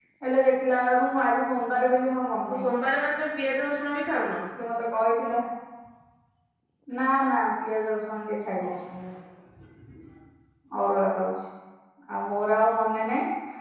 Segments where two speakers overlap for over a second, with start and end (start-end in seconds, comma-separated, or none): none